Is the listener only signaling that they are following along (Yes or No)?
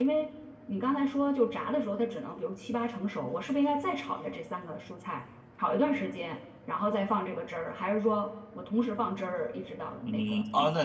No